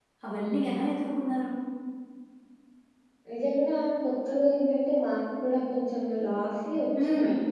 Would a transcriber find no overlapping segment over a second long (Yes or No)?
Yes